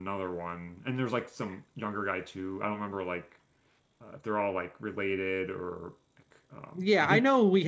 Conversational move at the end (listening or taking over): taking over